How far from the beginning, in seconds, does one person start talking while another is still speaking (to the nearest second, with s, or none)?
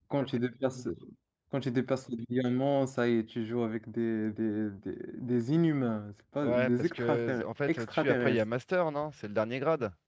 6 s